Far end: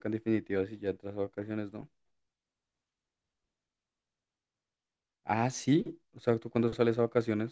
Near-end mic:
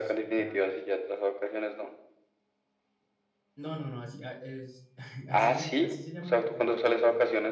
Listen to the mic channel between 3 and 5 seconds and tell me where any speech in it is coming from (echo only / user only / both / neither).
user only